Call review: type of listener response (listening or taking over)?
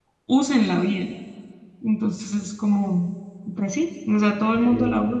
listening